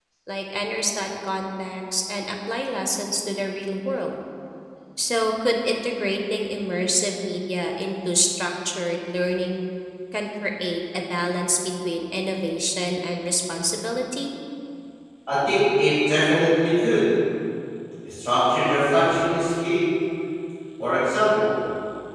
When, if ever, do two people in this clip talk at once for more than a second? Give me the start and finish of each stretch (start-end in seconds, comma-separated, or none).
none